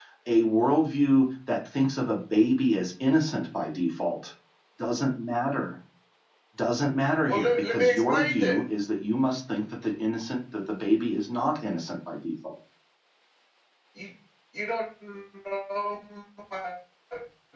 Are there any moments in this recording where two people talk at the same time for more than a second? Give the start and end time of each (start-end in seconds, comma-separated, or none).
7.3-8.6